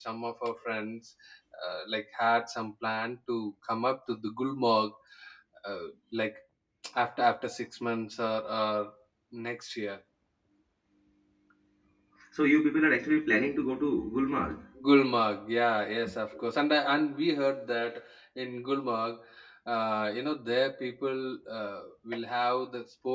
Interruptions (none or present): none